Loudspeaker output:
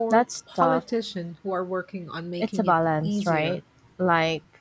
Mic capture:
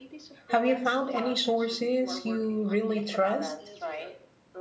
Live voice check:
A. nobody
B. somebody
B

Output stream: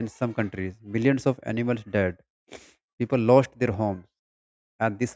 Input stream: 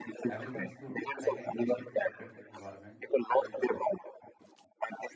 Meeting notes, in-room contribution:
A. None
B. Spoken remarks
B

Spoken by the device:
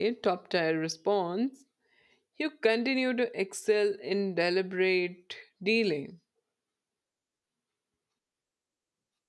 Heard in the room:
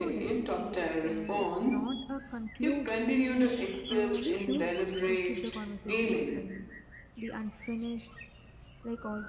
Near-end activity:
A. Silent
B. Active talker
B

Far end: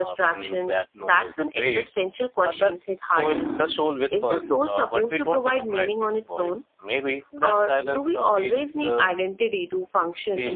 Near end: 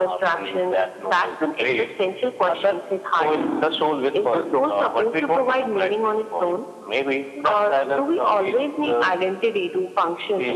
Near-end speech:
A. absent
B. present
A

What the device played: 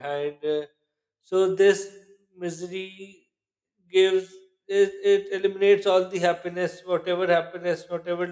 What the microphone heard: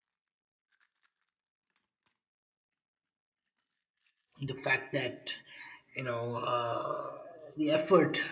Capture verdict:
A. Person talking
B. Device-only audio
A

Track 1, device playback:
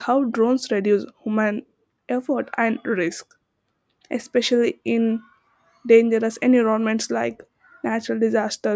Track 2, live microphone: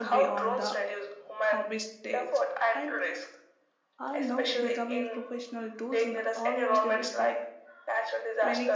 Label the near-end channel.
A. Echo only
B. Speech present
B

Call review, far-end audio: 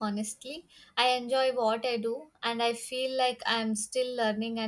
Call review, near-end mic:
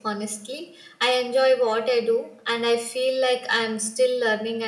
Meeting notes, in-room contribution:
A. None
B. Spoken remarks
A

